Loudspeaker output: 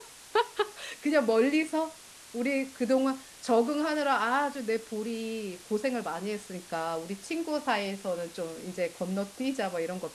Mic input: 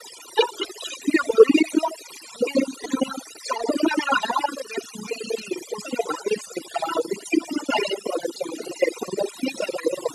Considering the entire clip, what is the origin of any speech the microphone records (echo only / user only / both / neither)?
echo only